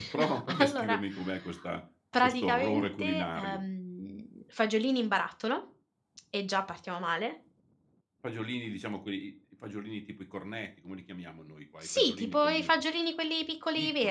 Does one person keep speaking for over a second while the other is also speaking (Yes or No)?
Yes